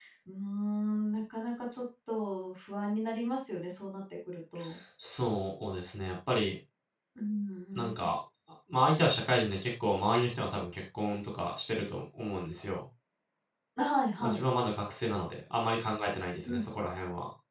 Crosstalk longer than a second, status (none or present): none